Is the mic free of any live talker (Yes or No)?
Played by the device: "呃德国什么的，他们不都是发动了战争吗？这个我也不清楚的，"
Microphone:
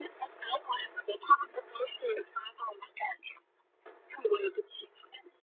Yes